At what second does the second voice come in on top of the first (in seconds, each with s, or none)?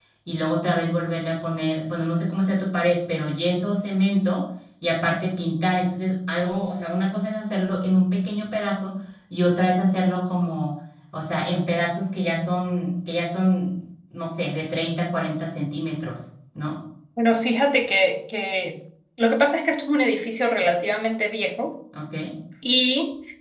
none